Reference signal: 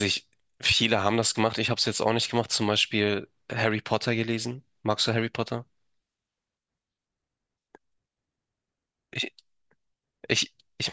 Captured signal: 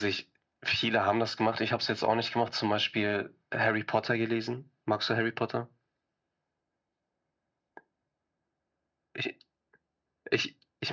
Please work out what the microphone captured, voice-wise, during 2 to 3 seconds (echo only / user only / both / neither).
echo only